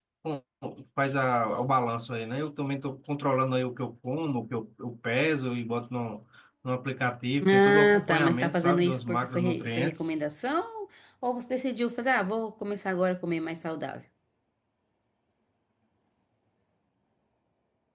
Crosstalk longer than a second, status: present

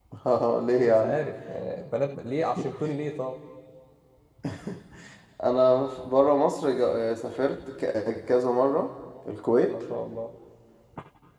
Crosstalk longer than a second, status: none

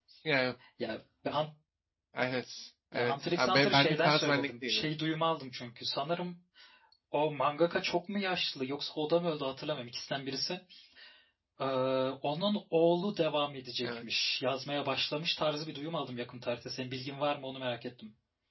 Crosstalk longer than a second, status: present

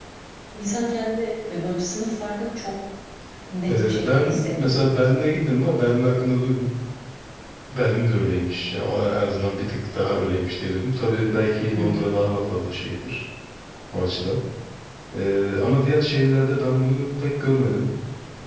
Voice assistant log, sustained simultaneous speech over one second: present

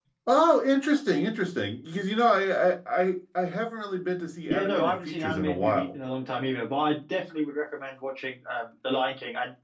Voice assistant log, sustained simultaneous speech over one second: present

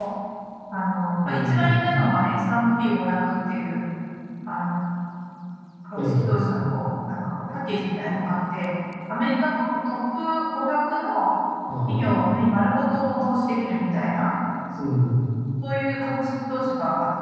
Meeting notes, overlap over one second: none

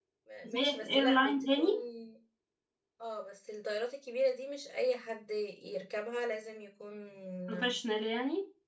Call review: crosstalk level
present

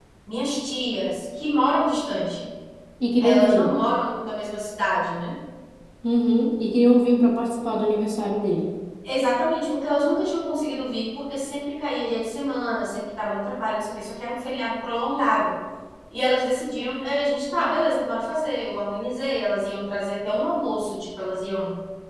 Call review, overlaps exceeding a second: none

